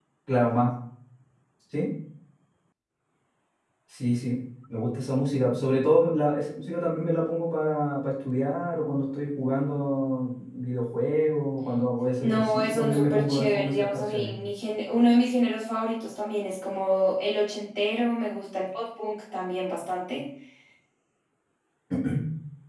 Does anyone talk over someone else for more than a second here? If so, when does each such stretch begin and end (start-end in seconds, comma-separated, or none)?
12.2-14.3